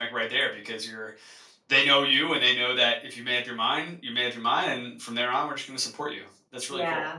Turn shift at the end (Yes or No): Yes